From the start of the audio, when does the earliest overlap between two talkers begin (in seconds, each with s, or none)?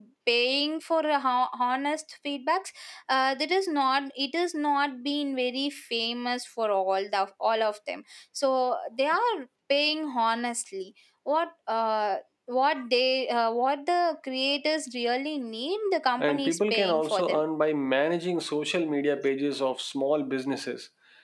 16.2 s